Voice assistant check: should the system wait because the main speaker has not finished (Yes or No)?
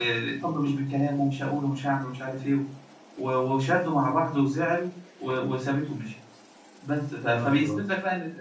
Yes